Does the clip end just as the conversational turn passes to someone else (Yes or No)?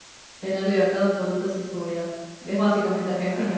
Yes